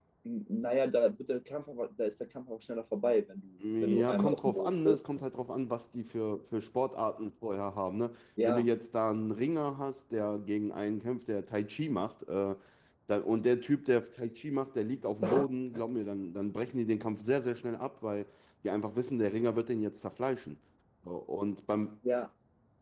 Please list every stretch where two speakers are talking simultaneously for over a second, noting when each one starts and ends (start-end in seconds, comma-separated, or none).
3.8-5.0